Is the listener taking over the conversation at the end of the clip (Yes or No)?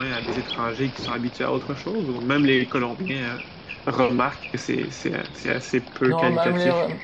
Yes